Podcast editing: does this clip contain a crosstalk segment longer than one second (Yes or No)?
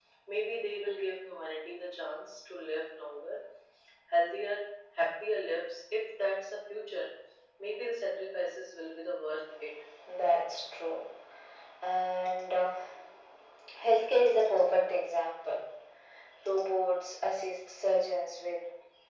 No